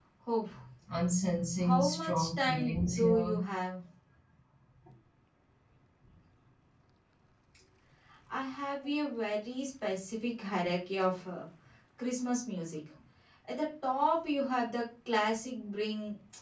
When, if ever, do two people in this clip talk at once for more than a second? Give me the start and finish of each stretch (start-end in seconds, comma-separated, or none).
1.6-3.4